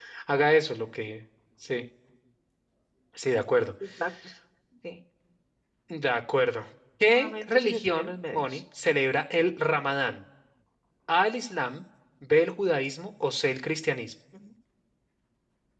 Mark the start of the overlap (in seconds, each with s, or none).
7.2 s